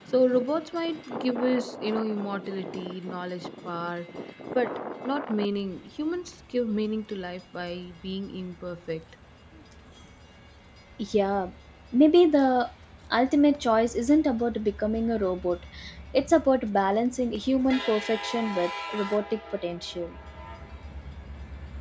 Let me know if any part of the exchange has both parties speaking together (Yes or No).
No